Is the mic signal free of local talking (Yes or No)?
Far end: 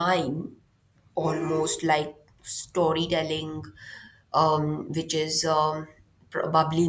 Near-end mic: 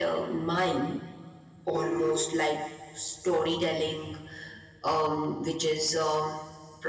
Yes